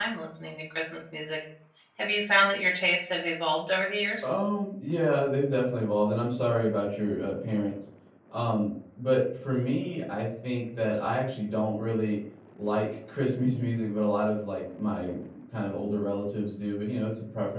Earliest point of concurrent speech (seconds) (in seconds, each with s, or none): none